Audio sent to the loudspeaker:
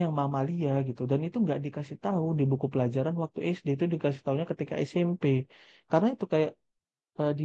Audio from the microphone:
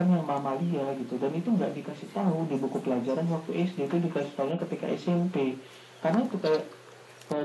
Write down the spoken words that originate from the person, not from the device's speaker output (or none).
none